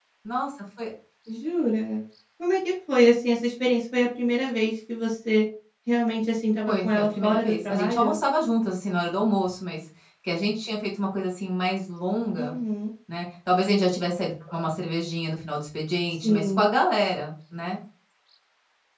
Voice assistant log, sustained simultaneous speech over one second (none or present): present